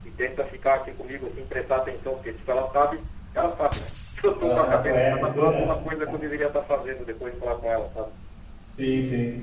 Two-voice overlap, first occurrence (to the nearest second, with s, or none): 4 s